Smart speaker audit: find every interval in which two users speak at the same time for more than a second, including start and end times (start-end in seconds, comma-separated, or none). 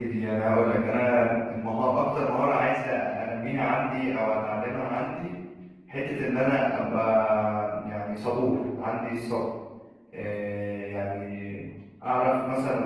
none